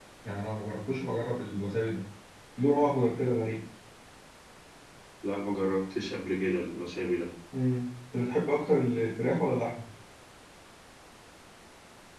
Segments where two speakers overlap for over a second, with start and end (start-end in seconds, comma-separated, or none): none